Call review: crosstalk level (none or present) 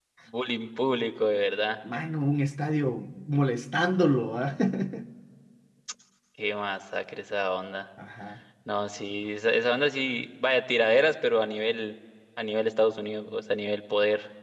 none